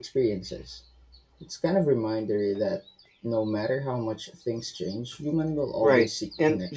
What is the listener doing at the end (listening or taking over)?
taking over